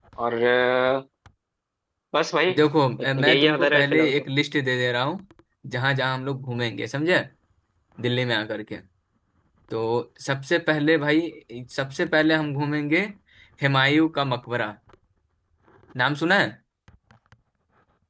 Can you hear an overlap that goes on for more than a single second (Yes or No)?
Yes